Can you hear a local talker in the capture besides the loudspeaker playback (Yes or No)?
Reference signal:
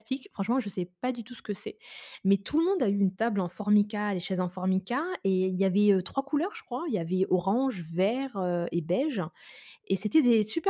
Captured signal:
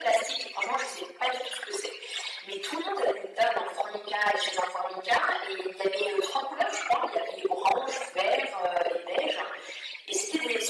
No